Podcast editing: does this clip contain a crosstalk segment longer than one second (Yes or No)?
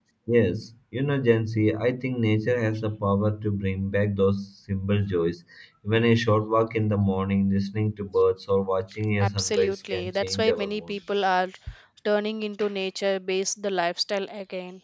Yes